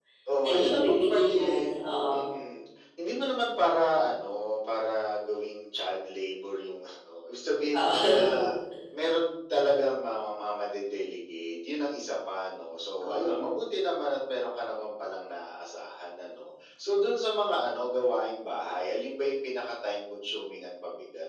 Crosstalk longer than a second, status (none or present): present